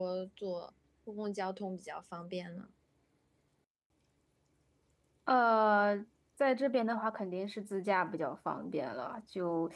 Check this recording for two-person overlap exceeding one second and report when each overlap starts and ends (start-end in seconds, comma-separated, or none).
none